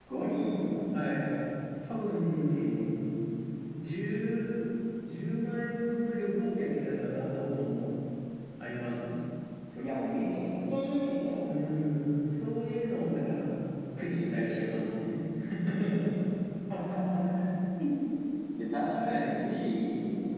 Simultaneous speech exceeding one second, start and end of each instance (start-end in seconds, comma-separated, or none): none